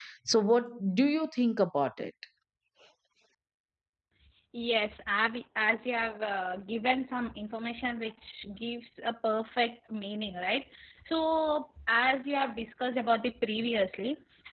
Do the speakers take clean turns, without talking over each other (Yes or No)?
Yes